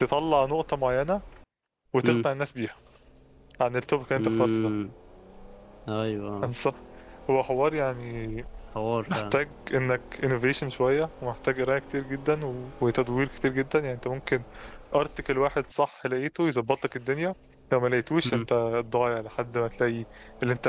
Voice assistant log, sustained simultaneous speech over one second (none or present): none